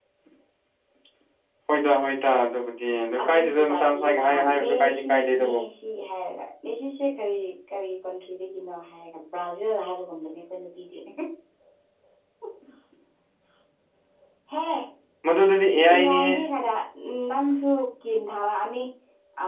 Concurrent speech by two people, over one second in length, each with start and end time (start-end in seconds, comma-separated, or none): 3.2-5.6